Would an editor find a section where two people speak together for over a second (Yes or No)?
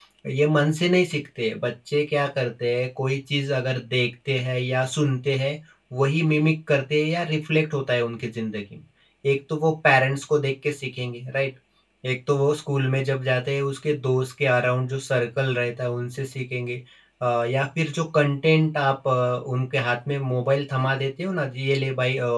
No